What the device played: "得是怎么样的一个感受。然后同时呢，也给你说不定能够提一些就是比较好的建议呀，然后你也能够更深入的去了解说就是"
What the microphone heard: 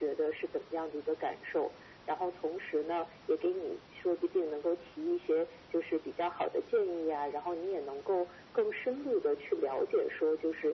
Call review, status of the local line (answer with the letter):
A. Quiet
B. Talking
A